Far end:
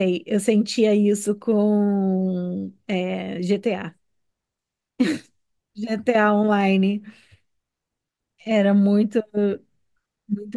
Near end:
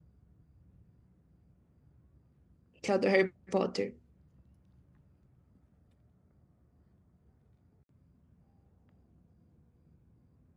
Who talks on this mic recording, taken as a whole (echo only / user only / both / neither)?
user only